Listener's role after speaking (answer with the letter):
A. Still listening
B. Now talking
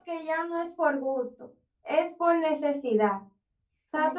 B